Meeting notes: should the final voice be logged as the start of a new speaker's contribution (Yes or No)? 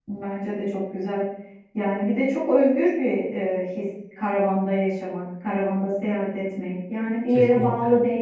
No